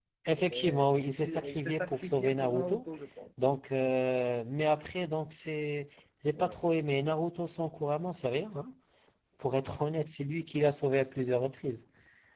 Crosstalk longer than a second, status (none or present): present